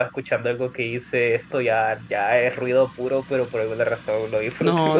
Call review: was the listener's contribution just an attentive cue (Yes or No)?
No